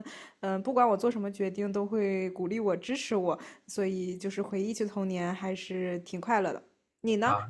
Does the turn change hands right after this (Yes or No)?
Yes